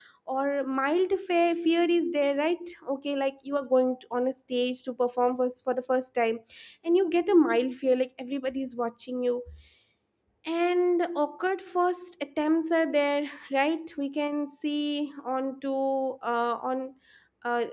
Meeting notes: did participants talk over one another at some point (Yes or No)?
No